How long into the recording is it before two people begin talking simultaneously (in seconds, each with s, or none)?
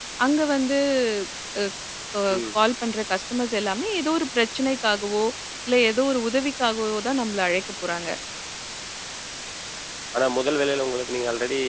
none